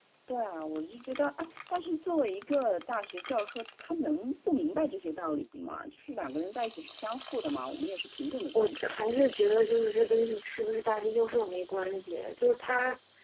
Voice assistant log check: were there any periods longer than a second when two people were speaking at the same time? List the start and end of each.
none

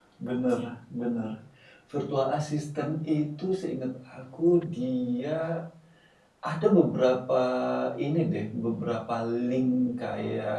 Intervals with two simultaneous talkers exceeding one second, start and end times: none

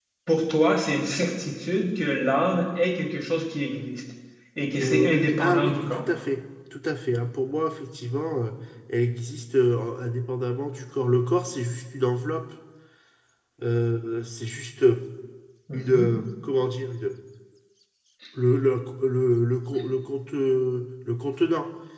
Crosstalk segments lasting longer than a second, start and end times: 4.8-6.1

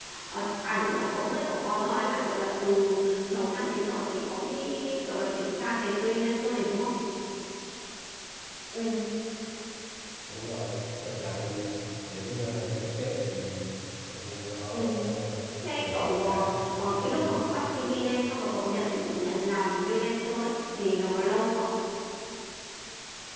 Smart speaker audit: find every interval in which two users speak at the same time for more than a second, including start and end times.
15.7-17.4

